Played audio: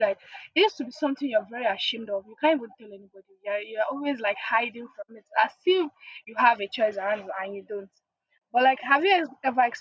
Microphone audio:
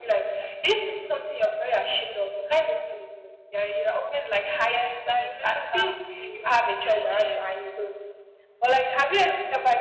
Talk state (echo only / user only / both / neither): both